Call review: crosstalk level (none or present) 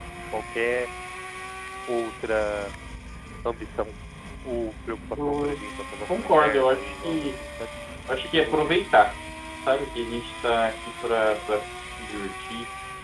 present